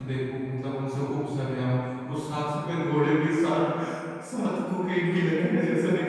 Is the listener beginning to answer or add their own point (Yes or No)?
Yes